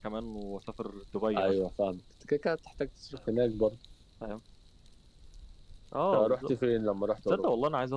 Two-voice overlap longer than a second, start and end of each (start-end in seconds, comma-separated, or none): none